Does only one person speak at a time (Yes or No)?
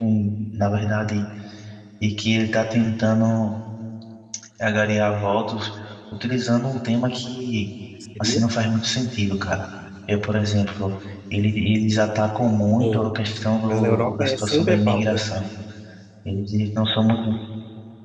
No